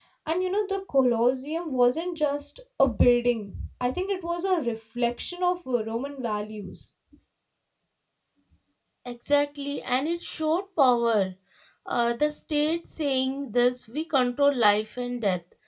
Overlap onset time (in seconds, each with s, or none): none